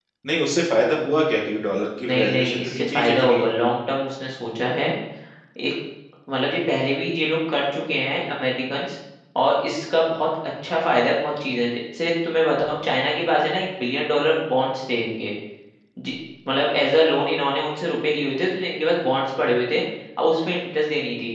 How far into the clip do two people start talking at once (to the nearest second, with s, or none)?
2 s